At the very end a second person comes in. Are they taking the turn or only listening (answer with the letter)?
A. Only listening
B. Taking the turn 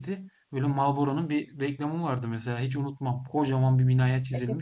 B